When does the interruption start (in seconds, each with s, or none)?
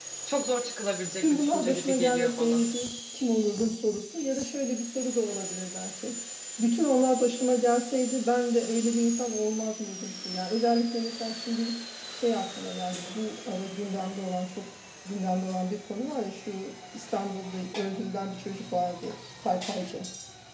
1.2 s